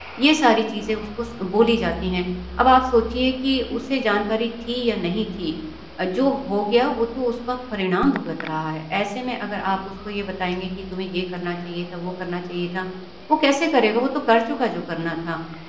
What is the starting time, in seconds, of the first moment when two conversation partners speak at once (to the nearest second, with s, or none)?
none